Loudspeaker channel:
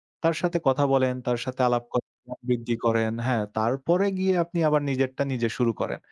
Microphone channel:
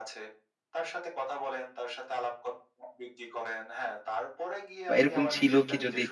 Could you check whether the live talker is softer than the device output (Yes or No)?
No